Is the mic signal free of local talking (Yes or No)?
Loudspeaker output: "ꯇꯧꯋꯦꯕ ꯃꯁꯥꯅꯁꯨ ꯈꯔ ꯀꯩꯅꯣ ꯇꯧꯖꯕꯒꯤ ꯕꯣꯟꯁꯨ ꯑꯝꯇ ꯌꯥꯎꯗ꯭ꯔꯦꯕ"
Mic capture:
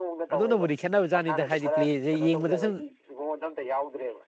No